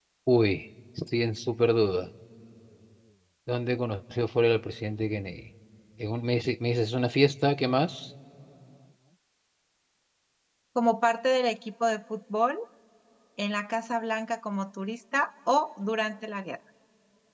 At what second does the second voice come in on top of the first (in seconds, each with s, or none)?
none